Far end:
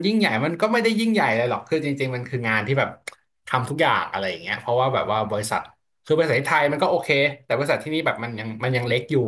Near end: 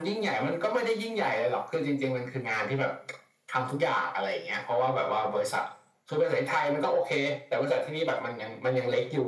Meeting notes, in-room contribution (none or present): none